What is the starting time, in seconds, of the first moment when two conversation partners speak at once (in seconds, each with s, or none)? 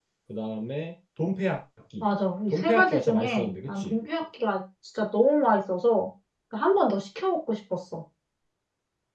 2.6 s